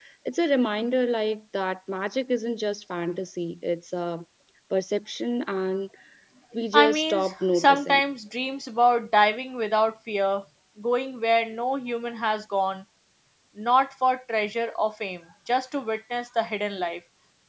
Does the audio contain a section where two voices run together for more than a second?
Yes, from 6.7 s

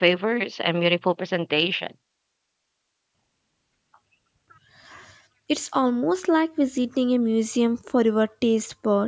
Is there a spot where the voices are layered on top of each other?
No

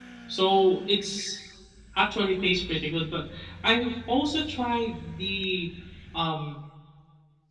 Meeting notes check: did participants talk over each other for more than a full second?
No

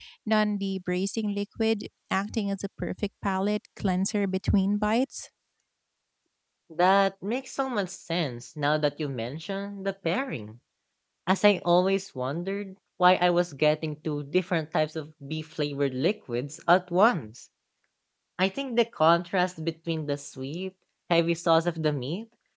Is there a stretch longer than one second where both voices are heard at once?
No

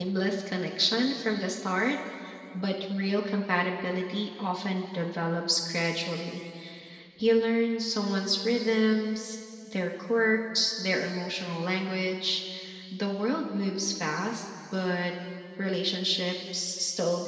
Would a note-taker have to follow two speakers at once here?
No

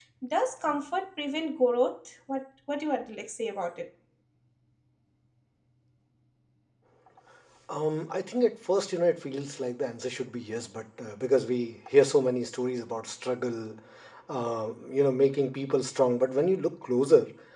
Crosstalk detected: No

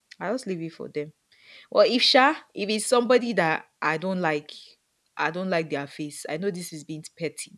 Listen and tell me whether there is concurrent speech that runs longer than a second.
No

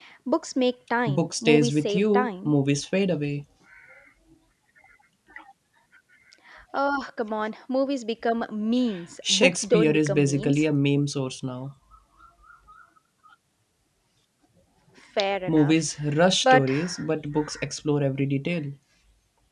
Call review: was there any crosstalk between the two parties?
Yes, from 1.1 s

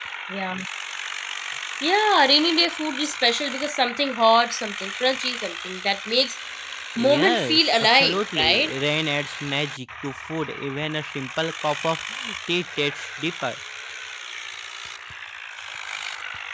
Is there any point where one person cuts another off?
Yes, from 7.0 s

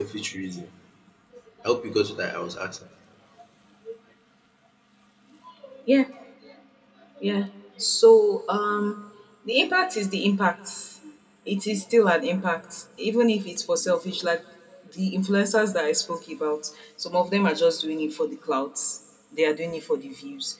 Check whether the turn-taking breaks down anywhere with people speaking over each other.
No

